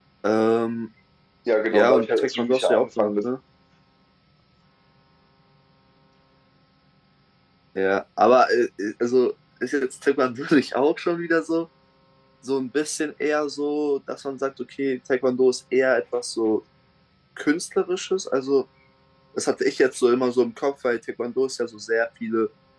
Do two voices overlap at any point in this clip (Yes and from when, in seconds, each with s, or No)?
Yes, from 1.7 s